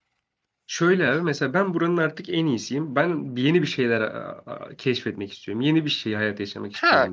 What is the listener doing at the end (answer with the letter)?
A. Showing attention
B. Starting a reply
B